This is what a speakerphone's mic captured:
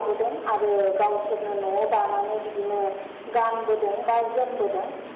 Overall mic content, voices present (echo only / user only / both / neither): echo only